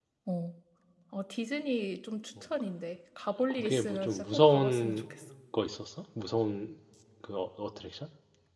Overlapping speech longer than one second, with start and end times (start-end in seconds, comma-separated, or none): 3.5-5.0